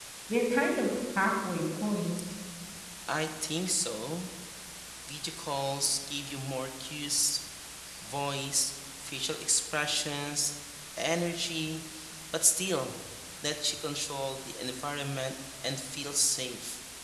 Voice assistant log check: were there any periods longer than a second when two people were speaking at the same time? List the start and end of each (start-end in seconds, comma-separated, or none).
none